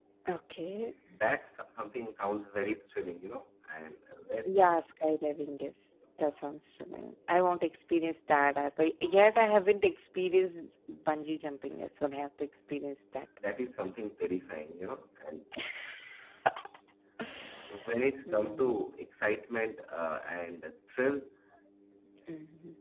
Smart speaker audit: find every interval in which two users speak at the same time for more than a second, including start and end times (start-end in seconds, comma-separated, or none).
none